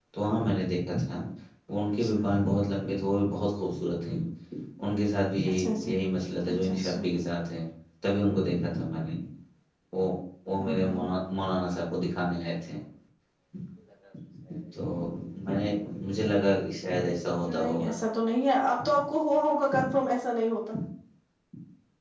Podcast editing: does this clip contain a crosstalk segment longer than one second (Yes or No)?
No